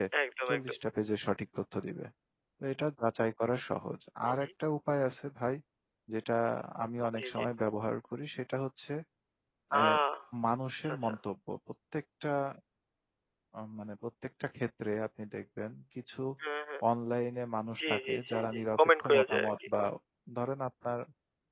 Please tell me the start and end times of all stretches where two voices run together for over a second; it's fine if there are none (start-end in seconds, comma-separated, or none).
17.8-19.5